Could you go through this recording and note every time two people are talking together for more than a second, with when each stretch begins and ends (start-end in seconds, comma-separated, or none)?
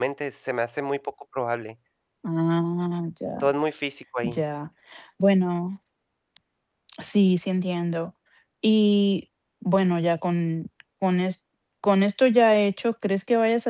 none